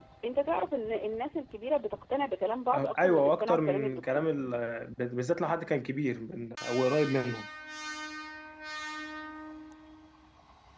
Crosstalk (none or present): present